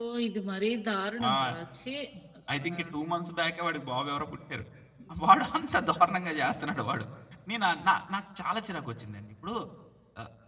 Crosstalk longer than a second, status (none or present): none